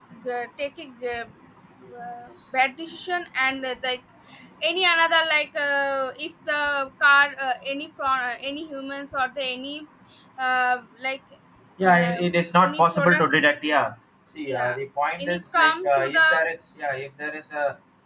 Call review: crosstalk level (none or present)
present